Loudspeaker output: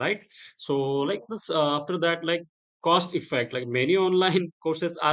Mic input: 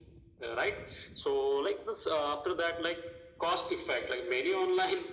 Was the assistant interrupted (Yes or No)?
No